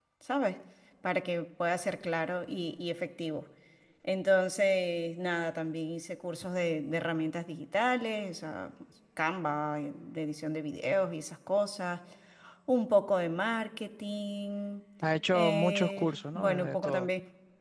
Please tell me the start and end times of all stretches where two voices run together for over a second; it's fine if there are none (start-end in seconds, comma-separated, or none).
15.3-17.1